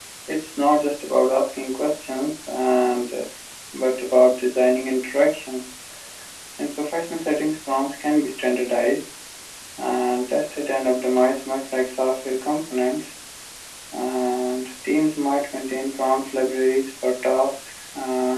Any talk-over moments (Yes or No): No